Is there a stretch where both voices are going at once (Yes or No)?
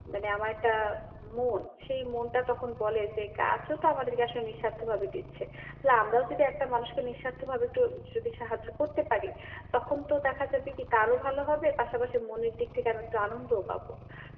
No